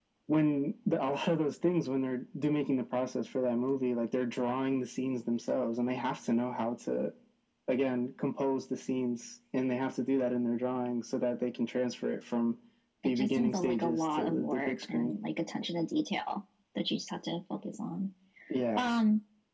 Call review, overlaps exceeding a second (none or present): present